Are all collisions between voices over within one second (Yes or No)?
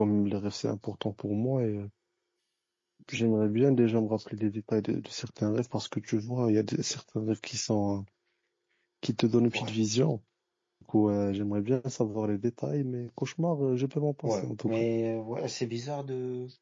Yes